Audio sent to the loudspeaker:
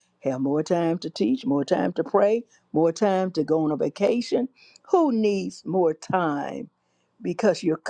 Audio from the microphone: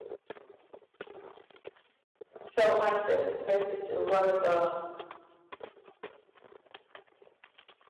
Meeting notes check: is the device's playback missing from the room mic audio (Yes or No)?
Yes